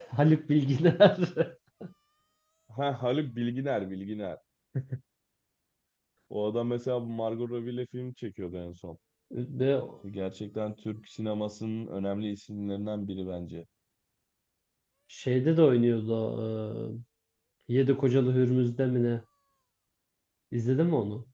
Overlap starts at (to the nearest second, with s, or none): none